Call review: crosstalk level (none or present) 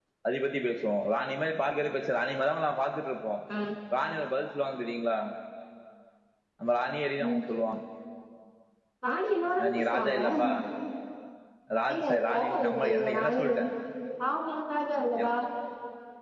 present